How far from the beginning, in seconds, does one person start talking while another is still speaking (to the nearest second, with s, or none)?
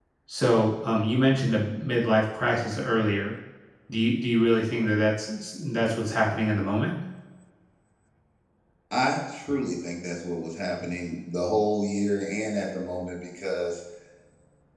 none